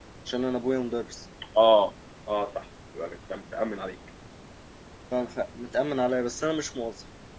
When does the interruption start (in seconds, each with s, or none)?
none